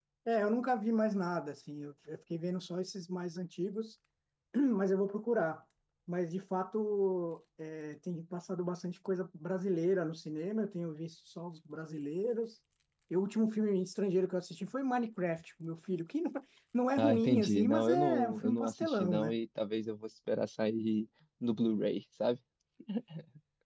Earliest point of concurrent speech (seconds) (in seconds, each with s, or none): 17.0 s